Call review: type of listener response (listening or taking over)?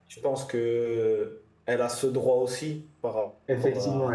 taking over